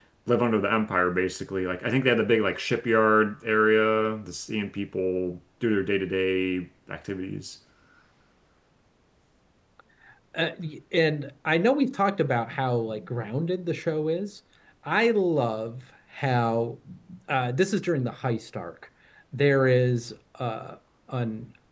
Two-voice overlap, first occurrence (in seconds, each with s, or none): none